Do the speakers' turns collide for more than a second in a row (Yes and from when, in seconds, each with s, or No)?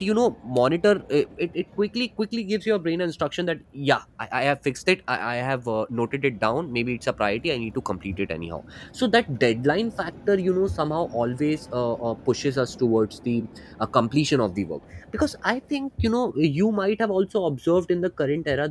No